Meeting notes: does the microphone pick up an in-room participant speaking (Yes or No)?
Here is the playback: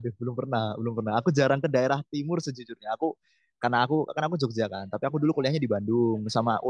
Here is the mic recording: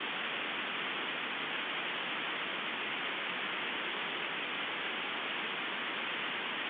No